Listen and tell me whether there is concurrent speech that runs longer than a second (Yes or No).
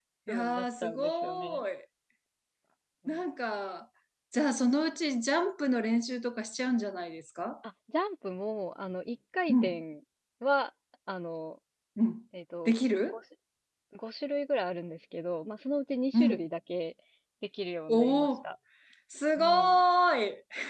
Yes